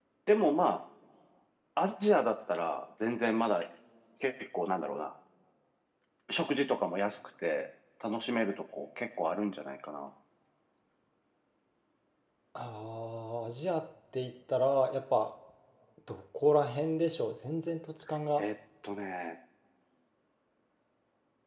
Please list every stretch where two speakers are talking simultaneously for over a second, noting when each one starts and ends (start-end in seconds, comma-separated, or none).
none